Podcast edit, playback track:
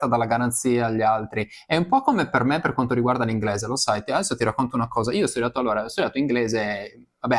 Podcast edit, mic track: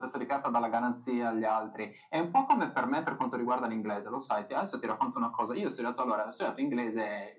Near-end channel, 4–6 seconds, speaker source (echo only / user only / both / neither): echo only